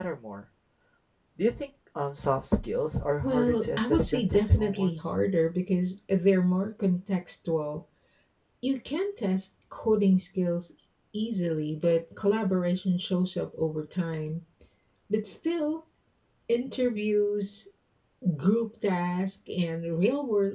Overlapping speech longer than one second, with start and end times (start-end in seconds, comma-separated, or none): 3.2-4.9